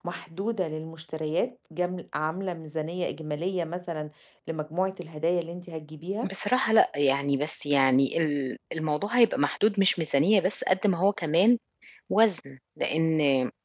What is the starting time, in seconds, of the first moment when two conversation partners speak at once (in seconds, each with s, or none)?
none